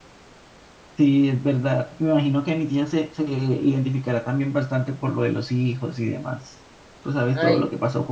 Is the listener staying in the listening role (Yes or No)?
Yes